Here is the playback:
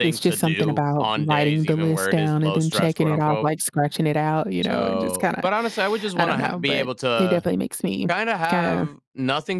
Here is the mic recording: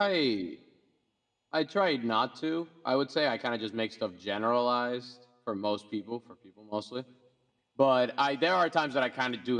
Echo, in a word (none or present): none